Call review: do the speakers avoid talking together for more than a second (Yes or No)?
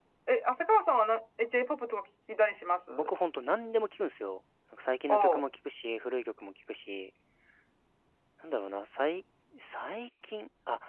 Yes